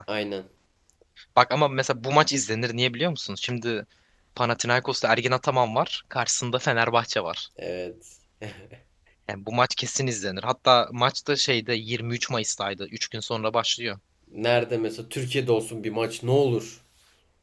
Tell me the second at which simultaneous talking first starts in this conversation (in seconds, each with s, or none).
none